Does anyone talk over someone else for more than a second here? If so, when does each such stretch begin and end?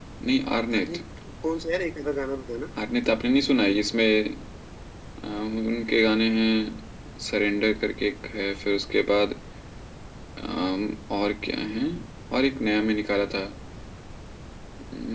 none

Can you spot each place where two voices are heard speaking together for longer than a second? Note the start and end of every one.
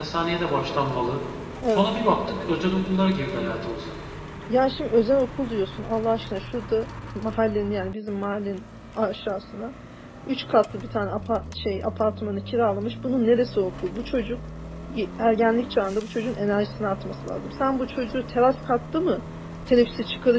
none

